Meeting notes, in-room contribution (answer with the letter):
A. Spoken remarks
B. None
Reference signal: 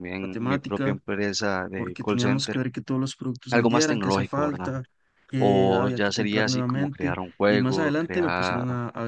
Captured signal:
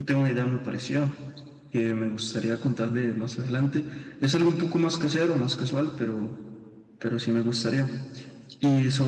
A